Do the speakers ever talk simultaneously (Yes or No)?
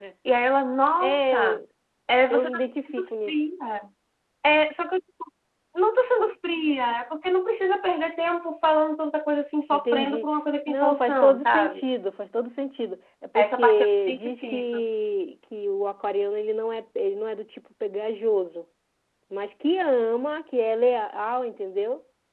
Yes